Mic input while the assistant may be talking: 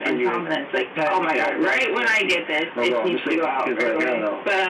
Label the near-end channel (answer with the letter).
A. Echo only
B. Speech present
A